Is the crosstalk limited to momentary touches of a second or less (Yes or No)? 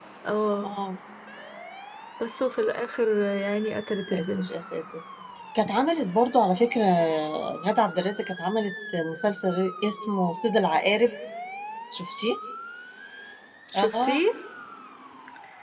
Yes